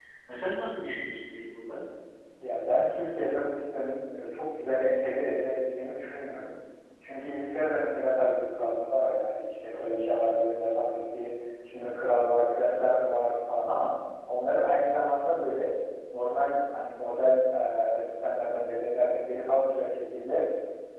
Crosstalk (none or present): none